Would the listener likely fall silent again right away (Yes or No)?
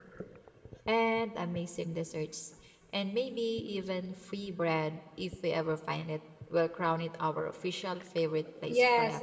No